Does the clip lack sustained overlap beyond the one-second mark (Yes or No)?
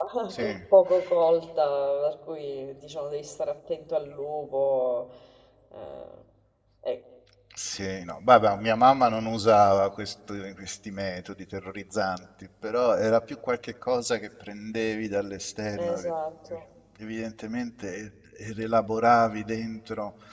Yes